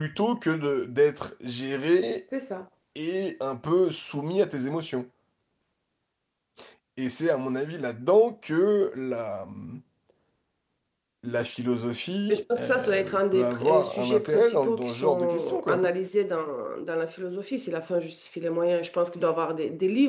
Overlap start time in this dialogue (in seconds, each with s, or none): 12.3 s